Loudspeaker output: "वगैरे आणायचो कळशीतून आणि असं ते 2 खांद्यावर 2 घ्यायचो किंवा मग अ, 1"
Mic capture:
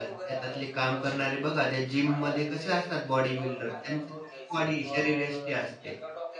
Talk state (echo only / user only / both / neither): both